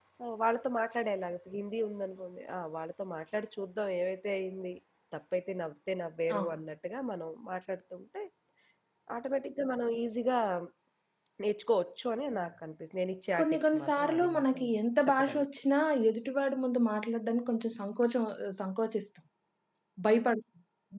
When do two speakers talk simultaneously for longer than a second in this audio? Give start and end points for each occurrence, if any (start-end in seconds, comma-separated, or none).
13.4-14.6